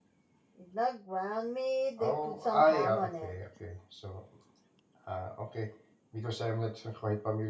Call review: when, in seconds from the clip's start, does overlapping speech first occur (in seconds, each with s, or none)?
2.0 s